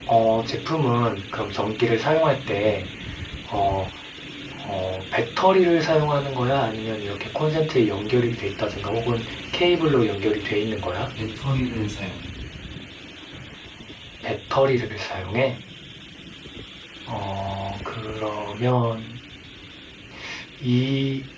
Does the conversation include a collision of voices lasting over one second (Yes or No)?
No